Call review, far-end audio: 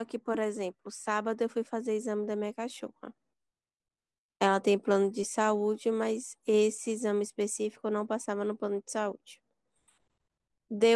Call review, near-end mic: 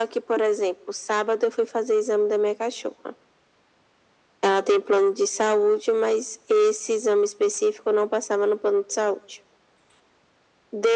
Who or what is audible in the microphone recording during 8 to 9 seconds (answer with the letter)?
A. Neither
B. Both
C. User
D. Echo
D